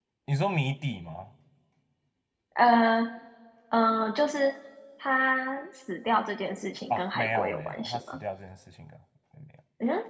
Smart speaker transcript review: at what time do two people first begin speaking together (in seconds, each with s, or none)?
6.9 s